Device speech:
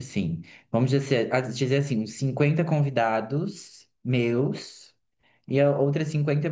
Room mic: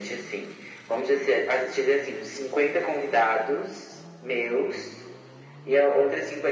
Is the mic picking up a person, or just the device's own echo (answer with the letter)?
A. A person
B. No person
B